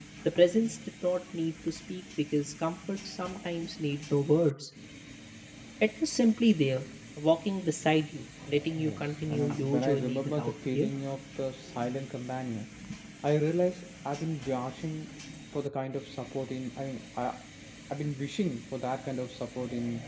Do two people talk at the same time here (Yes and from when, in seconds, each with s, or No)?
Yes, from 8.8 s